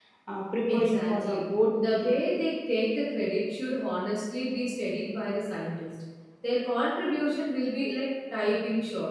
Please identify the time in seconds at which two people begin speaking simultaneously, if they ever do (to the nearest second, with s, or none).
1 s